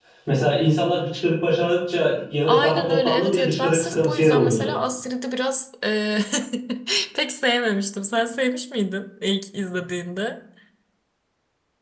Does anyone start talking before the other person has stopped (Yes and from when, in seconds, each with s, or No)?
Yes, from 2.5 s